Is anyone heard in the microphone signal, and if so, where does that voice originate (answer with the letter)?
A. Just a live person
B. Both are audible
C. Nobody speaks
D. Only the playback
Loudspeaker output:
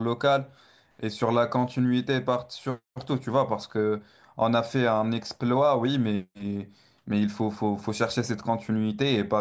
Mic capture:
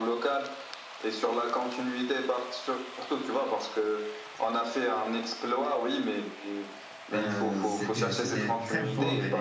B